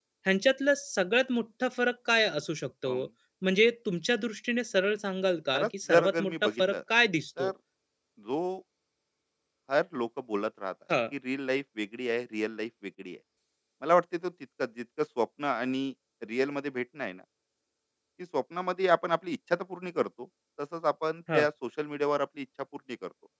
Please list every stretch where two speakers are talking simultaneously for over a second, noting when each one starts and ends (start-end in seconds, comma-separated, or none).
5.5-6.8